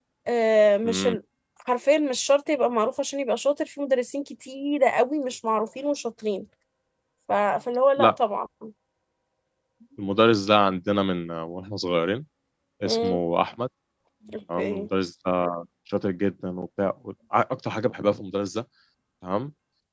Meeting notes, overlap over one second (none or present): none